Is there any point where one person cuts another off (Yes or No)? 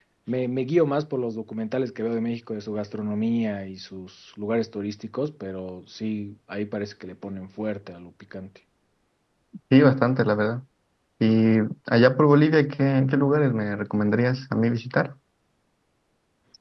No